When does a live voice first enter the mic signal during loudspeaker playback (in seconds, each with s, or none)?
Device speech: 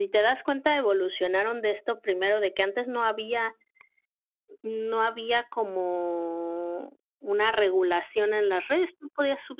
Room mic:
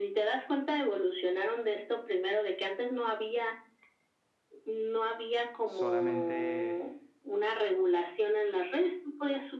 5.6 s